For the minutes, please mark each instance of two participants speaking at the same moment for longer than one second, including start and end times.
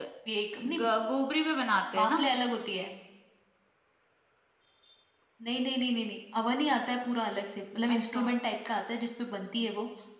none

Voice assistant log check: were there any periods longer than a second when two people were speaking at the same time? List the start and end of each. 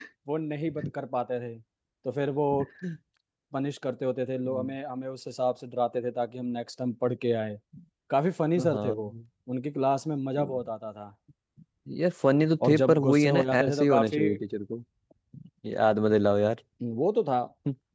12.6-14.2

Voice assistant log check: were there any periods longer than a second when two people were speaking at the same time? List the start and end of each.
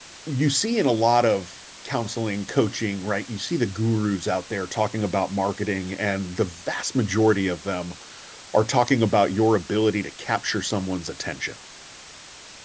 none

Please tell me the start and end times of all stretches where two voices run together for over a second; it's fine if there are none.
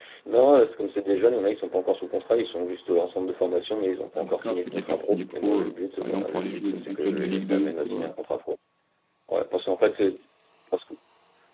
4.1-8.1

